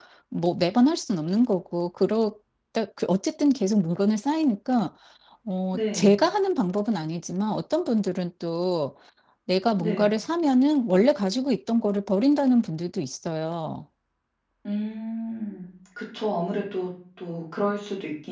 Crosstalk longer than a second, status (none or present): none